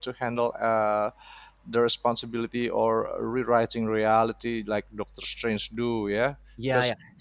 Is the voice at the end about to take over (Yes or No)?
Yes